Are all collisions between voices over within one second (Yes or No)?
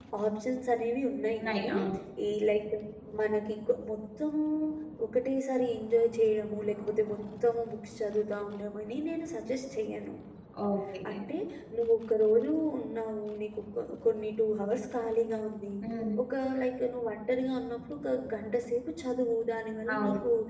Yes